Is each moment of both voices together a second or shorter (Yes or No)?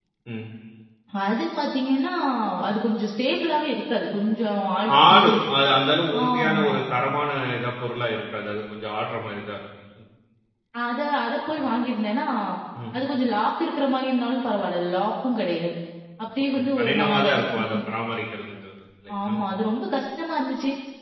No